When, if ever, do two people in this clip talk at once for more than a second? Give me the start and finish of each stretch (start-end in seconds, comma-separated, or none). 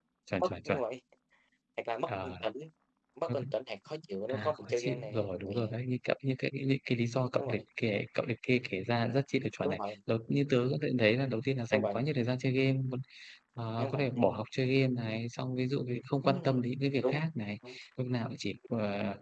4.3-5.7